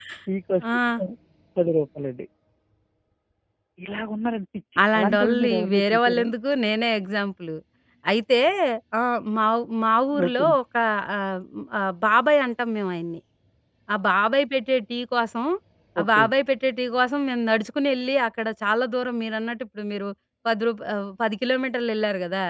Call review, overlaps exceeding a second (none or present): present